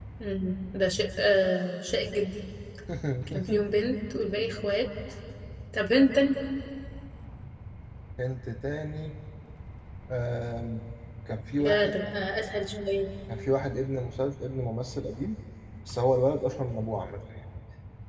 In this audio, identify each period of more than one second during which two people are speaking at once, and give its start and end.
none

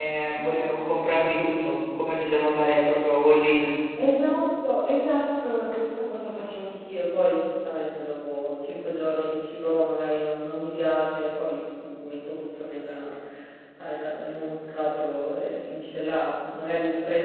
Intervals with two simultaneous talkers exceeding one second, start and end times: none

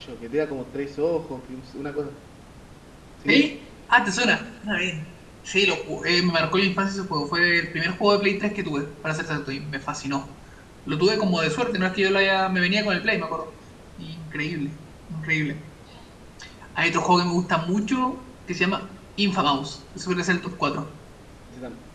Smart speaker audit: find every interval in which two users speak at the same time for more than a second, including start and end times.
none

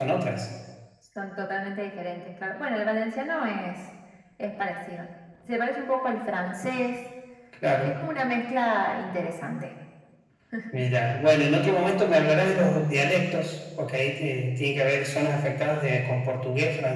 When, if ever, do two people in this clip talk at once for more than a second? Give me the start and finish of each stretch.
none

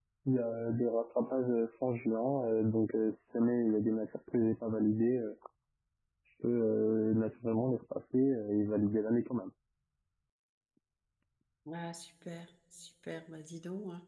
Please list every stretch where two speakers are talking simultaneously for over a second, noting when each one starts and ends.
none

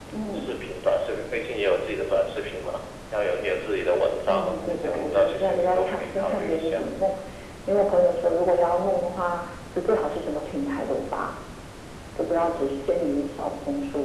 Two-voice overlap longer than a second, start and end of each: 4.3-6.8

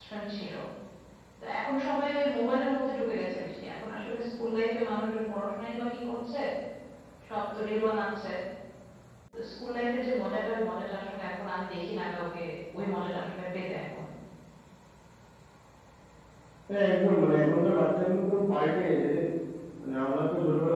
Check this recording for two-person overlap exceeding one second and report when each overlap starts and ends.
none

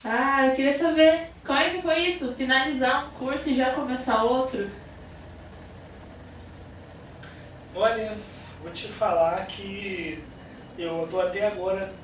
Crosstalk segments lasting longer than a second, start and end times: none

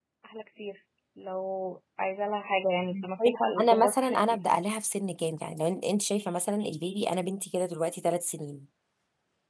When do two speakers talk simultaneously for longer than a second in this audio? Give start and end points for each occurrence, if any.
2.9-4.4

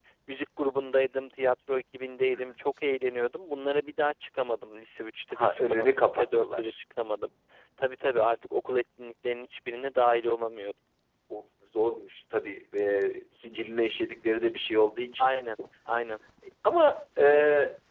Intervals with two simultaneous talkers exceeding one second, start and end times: 5.3-6.7

